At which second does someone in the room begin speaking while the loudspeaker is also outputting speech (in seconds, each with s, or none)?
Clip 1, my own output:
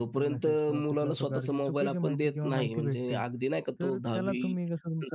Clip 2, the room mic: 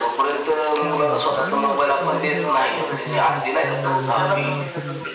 0.8 s